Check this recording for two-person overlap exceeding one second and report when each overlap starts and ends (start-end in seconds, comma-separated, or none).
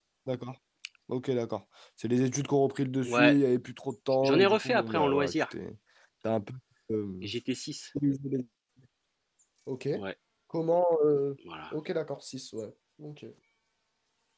4.2-5.4